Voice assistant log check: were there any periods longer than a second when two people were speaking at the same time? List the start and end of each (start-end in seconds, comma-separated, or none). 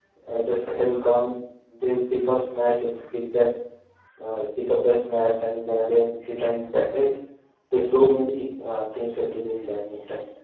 none